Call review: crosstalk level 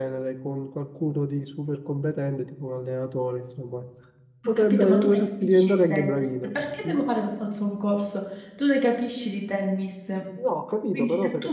present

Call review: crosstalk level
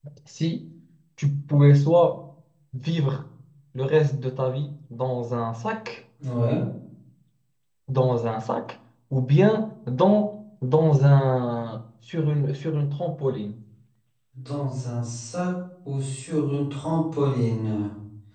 none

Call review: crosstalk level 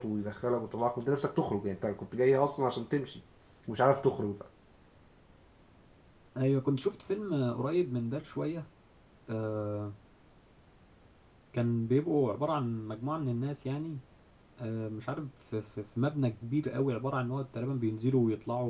none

